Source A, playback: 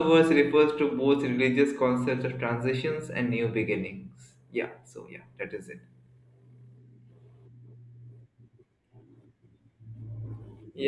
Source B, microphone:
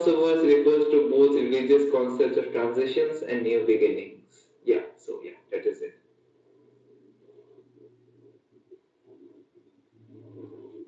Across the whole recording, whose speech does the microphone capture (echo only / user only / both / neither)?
echo only